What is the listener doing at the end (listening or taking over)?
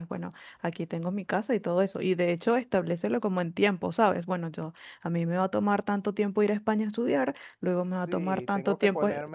taking over